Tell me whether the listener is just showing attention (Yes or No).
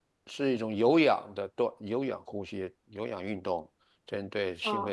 No